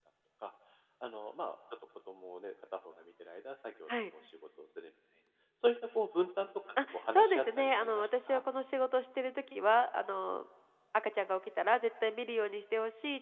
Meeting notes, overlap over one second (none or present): present